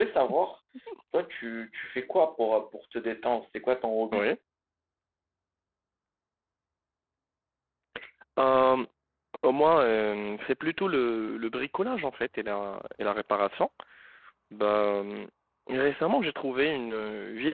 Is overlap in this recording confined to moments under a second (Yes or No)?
Yes